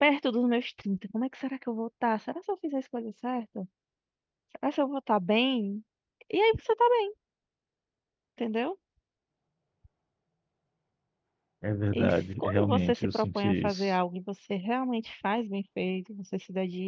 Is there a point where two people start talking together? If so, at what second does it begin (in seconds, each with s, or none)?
11.9 s